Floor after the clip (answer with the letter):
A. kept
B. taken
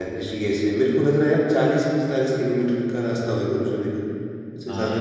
B